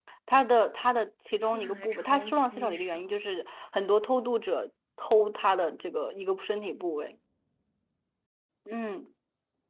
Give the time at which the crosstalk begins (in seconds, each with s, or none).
1.4 s